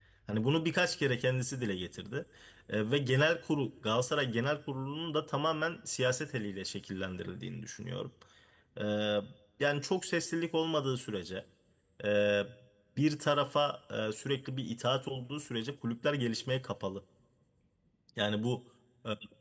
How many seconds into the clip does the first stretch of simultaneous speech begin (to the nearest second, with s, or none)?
none